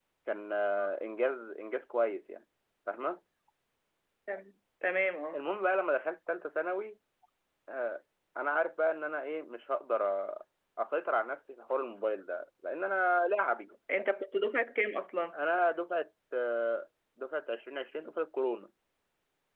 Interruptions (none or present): none